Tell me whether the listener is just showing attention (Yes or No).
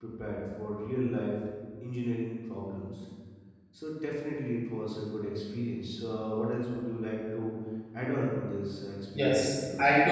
No